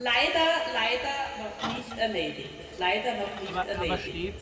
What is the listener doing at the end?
taking over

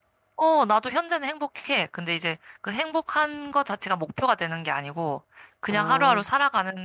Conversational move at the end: listening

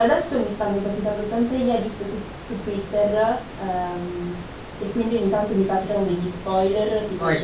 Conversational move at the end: listening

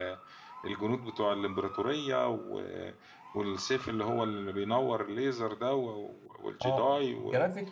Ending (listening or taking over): taking over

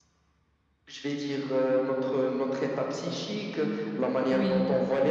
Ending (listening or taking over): listening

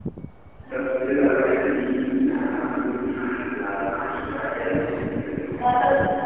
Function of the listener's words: taking over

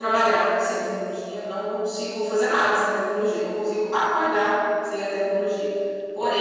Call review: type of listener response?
listening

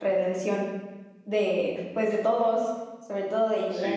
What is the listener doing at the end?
taking over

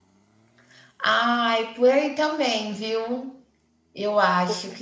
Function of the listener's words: listening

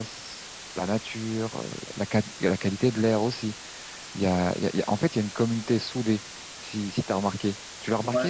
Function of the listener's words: taking over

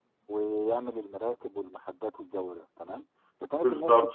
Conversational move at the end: listening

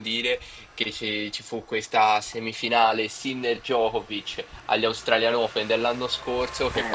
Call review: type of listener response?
listening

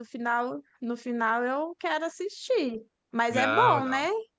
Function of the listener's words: taking over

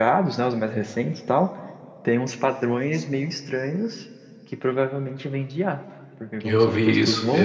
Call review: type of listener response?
taking over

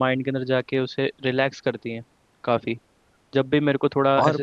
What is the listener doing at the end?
listening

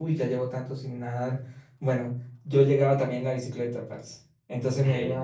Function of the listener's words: listening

